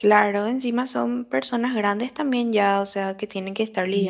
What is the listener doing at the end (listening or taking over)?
taking over